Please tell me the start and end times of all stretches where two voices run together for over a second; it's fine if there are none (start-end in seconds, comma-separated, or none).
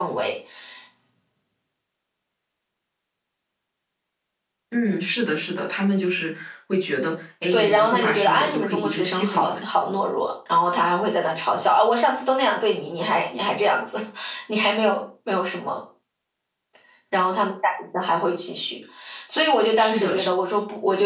7.5-9.7